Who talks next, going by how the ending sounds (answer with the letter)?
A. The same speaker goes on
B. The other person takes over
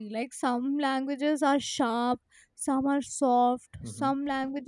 A